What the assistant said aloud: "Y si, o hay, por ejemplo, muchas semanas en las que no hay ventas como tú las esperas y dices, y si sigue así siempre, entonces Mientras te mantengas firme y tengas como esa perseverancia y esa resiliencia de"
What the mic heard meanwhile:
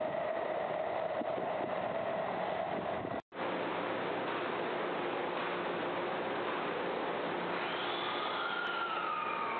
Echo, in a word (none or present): none